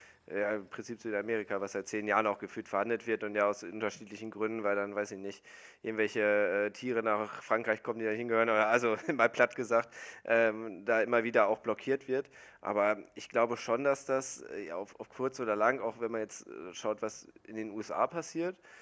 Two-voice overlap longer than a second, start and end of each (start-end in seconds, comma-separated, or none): none